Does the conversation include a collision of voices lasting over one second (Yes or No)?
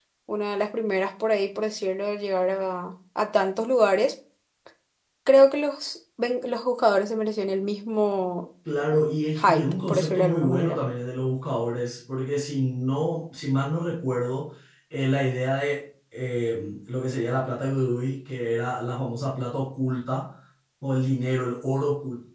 Yes